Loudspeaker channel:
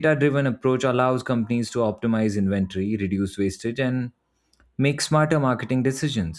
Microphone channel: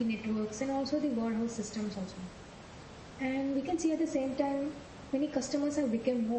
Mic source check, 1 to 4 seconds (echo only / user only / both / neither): user only